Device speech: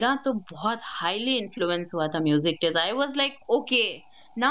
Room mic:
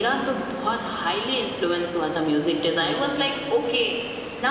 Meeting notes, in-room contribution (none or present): none